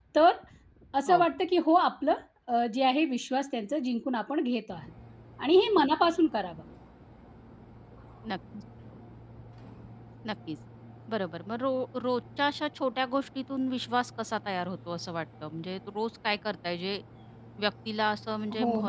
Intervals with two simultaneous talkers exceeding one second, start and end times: none

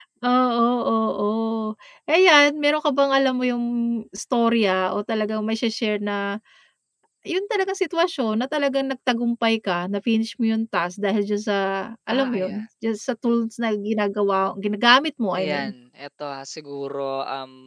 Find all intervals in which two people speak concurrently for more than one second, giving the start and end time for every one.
none

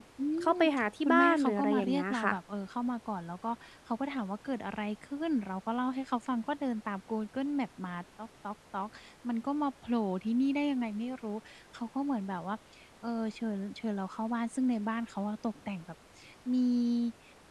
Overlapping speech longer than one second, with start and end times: 1.0-2.3

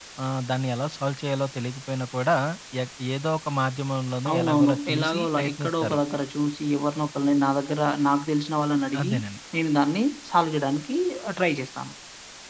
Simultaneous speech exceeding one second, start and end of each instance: 4.3-6.0

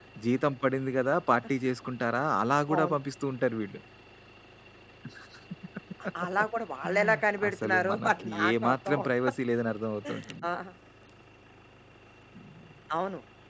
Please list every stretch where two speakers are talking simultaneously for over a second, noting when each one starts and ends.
7.5-9.1

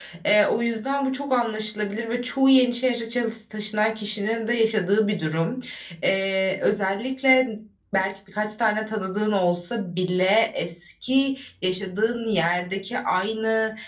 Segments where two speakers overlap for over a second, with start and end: none

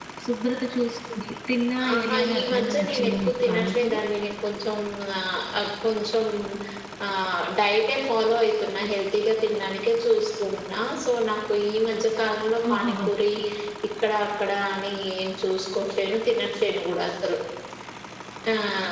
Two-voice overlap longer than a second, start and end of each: 1.9-4.0

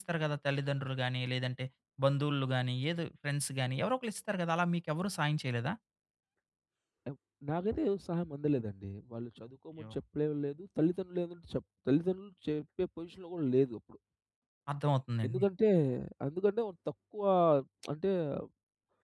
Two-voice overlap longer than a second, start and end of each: none

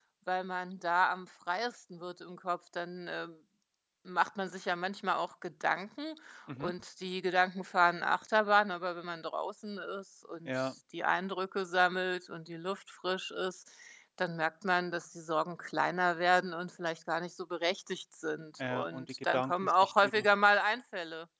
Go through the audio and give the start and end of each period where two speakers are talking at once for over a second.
18.7-20.2

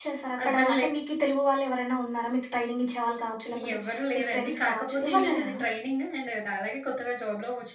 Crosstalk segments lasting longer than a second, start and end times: 4.2-5.5

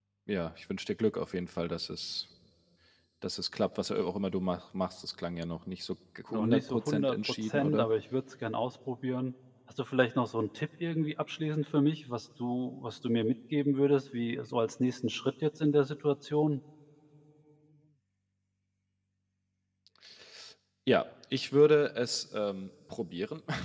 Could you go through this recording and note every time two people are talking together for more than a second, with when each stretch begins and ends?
6.3-7.9

